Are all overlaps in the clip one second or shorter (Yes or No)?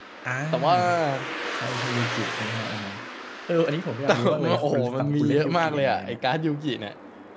No